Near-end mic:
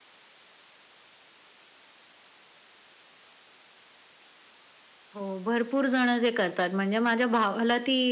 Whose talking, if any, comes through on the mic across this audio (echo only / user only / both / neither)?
user only